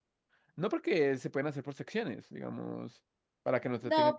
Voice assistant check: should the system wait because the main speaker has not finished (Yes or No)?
No